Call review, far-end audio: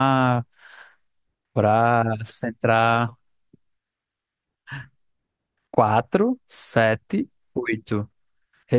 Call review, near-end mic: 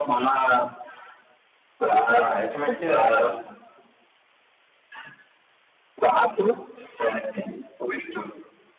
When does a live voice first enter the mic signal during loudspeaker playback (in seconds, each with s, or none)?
2.2 s